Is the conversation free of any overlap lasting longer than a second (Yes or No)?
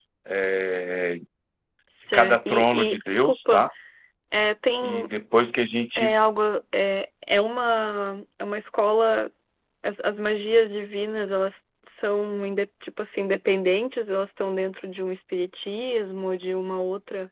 No